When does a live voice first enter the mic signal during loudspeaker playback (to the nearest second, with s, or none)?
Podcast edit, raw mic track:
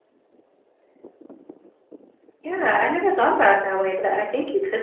2 s